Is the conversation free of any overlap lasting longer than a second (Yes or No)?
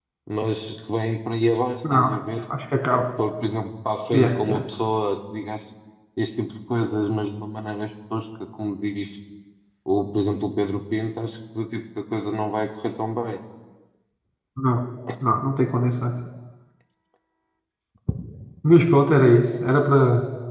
Yes